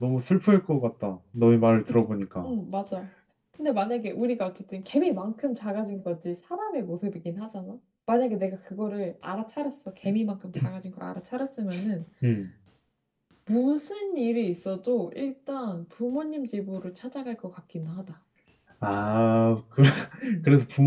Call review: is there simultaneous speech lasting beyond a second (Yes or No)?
No